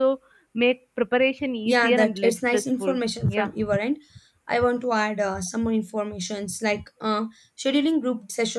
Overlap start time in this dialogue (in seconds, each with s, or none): 1.7 s